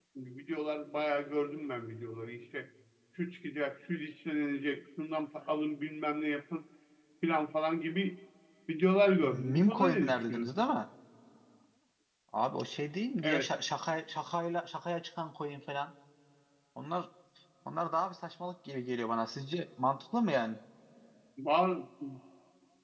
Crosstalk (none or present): present